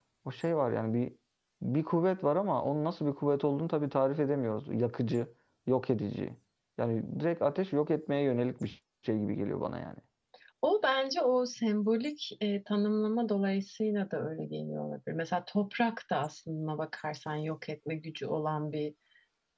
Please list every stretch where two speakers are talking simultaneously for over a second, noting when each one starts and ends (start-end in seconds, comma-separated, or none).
none